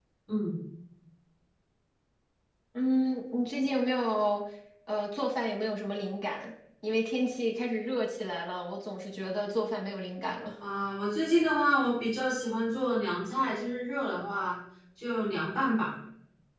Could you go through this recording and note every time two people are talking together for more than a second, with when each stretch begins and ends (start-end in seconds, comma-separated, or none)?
none